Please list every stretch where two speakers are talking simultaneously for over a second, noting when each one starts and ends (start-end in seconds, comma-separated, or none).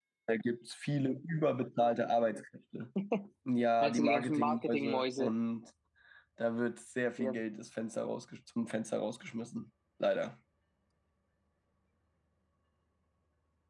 3.8-5.3